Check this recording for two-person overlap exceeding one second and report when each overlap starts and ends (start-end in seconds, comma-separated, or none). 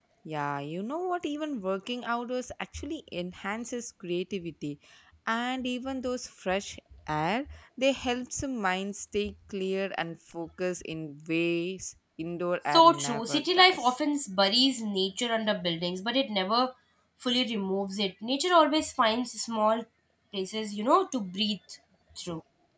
12.7-14.0